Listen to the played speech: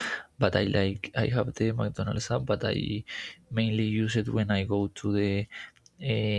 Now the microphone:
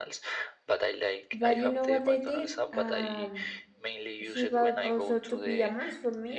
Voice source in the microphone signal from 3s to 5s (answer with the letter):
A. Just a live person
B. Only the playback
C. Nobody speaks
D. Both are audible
D